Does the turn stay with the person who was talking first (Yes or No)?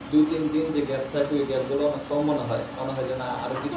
No